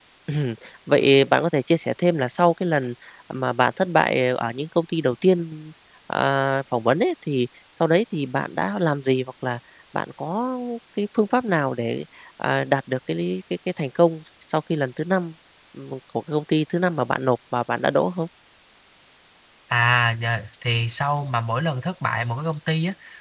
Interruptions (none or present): none